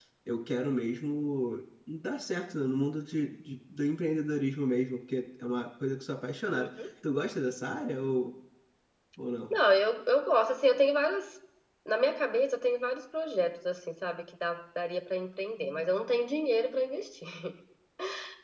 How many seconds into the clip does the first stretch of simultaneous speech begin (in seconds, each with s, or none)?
none